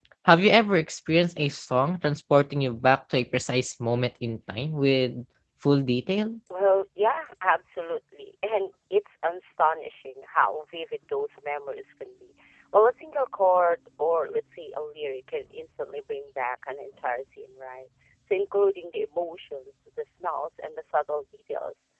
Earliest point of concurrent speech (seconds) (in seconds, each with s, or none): none